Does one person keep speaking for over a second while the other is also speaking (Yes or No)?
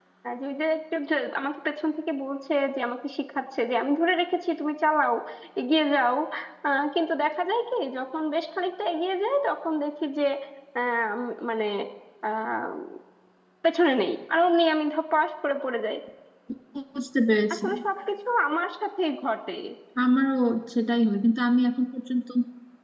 No